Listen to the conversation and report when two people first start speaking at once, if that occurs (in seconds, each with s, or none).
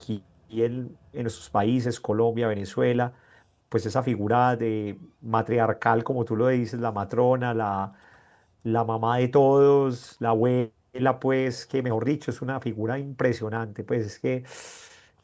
none